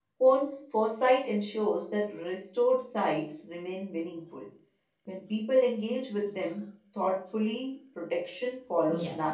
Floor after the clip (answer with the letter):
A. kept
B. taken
B